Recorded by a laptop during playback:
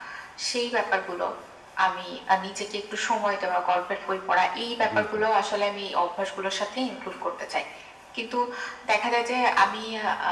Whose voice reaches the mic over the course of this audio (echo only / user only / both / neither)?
both